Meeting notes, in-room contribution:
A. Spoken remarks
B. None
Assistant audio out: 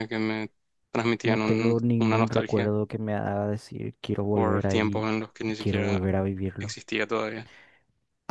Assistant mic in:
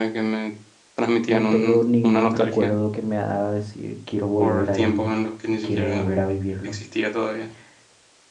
B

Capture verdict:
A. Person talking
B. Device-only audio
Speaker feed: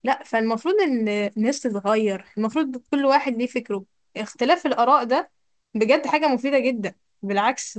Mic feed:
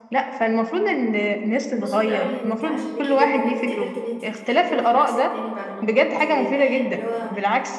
A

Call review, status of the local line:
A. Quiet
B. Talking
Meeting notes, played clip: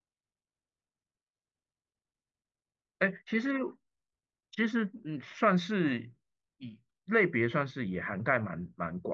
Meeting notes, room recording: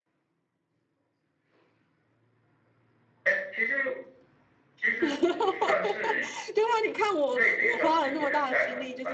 B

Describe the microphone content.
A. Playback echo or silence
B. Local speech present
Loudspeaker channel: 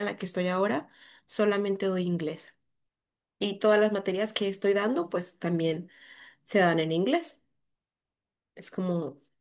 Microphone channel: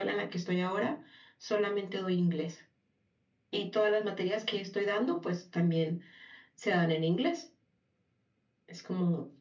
A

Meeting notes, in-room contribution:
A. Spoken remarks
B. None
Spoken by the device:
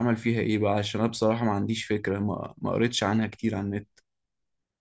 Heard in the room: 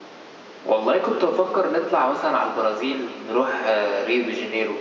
A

